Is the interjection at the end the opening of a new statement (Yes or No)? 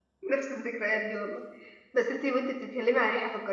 No